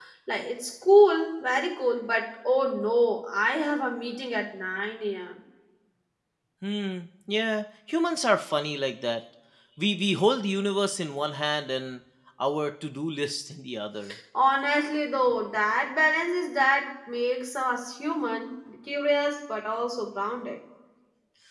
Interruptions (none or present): none